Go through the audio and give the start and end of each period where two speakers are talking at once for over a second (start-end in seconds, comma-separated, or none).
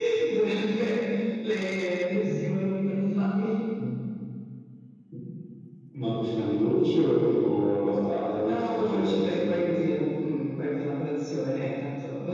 8.4-9.7